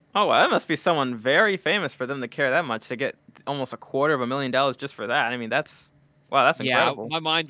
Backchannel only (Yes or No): No